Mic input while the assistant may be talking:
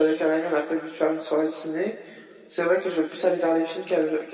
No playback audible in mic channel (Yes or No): No